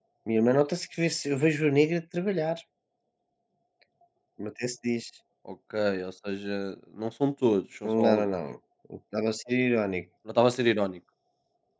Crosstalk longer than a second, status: none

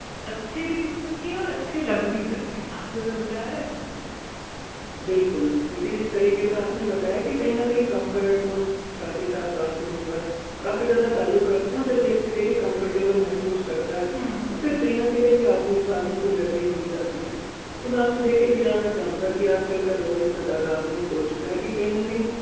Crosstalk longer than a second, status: none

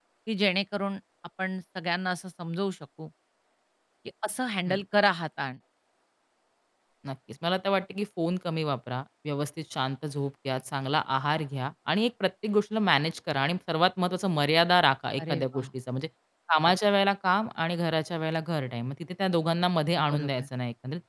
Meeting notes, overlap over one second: none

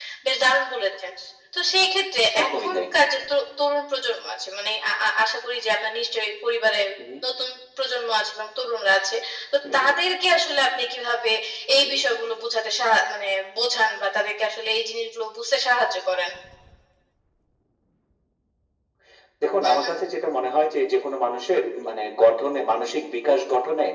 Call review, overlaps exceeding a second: none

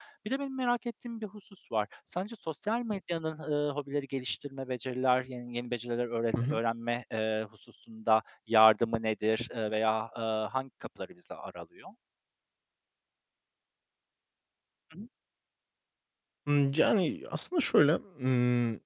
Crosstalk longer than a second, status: none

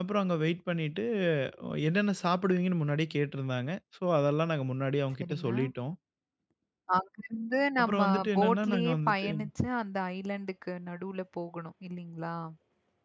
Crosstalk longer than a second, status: present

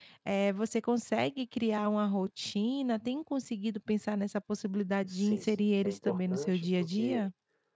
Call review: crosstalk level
present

